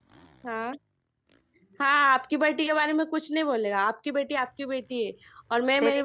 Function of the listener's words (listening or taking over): taking over